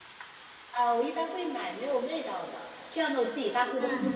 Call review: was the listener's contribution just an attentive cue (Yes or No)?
Yes